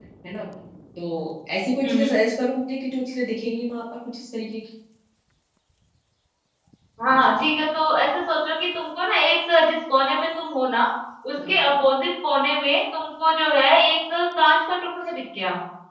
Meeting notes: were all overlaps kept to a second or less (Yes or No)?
Yes